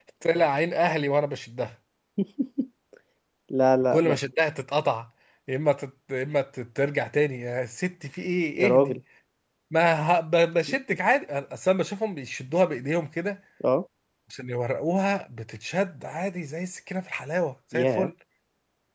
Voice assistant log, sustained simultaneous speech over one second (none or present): none